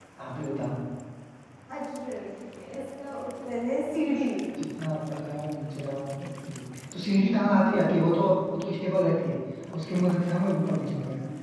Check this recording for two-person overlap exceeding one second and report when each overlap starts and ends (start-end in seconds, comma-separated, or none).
none